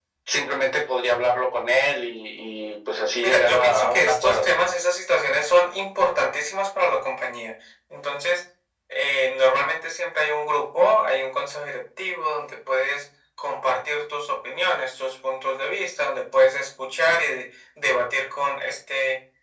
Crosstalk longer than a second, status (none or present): present